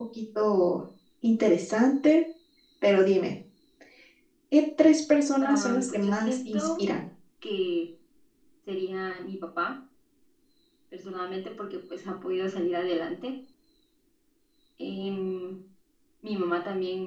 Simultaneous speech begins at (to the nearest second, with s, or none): 5 s